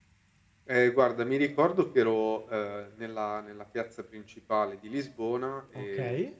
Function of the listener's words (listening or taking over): listening